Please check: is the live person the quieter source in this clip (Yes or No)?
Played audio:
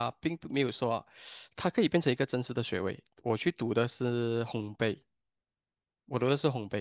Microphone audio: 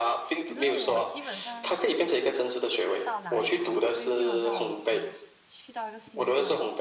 Yes